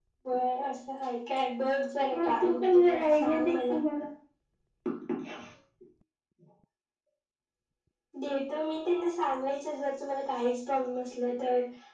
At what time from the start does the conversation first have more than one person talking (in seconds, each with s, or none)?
2.1 s